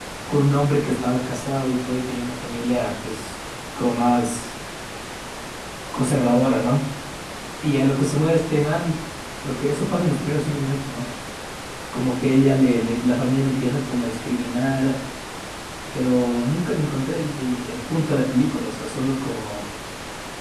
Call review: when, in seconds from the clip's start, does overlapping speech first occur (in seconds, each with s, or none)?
none